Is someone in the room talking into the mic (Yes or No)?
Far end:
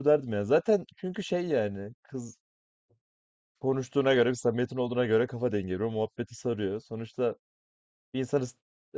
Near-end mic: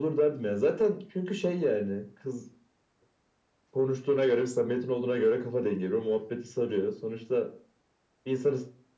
No